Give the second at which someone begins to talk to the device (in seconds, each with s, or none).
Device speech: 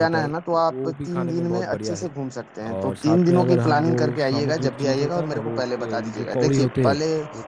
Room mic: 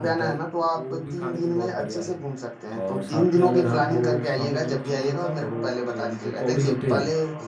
none